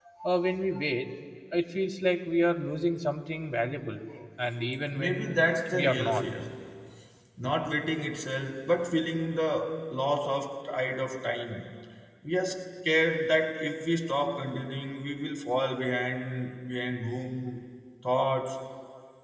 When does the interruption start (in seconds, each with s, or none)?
4.9 s